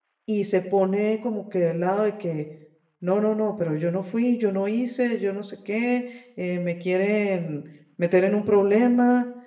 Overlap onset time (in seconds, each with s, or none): none